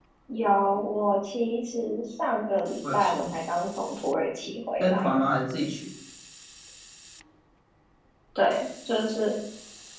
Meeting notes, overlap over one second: none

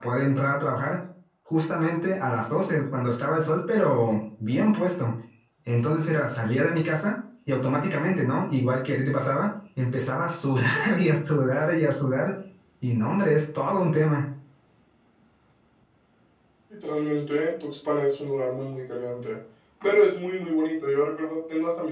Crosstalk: none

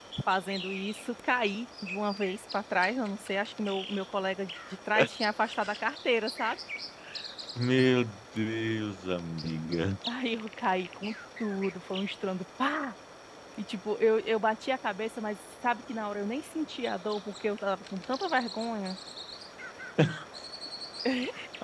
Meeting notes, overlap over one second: none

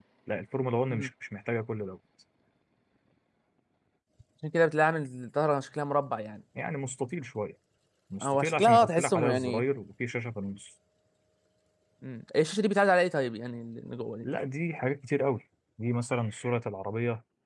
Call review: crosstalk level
present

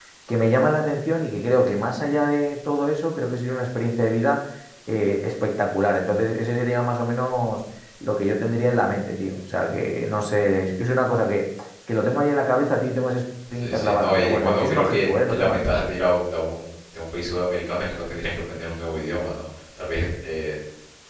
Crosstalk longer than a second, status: present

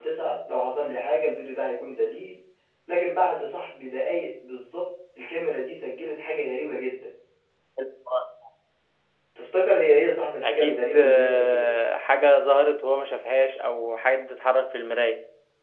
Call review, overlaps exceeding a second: present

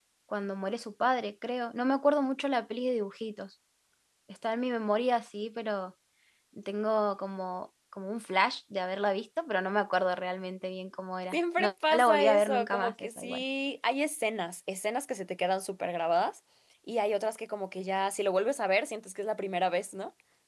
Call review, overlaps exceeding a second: present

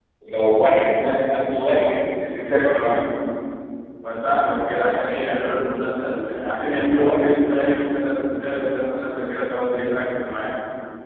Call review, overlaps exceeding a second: none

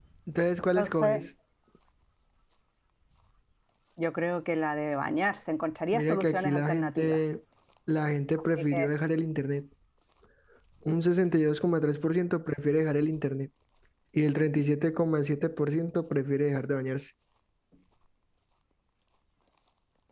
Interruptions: present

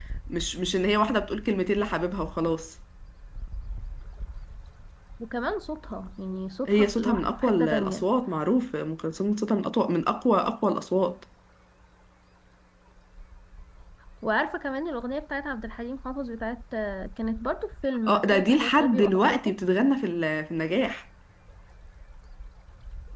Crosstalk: present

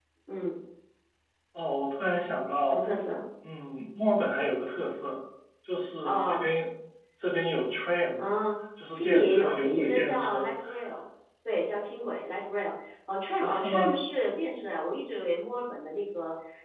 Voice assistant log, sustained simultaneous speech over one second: present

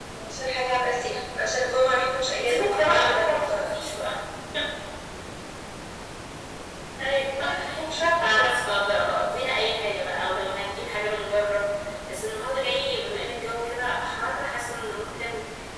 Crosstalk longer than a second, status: present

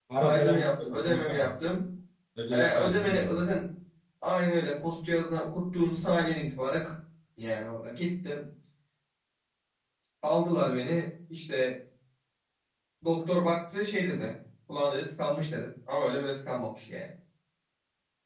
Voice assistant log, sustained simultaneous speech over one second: present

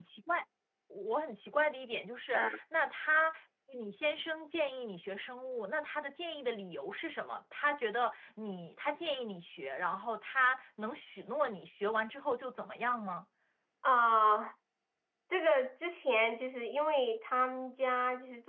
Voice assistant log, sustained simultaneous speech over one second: none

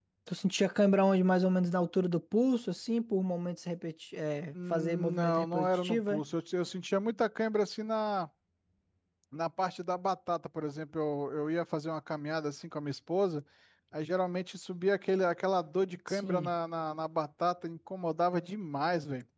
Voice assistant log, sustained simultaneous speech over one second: present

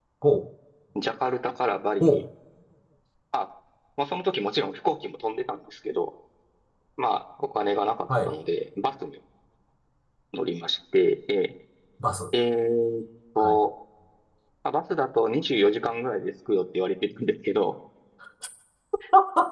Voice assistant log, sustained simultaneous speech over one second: none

